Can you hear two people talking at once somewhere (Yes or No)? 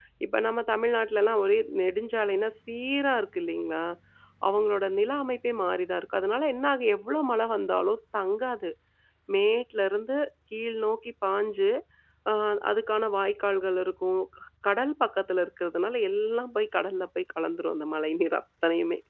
No